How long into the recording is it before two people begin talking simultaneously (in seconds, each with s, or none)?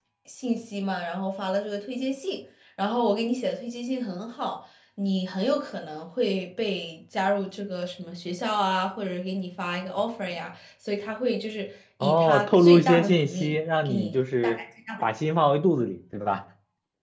12.0 s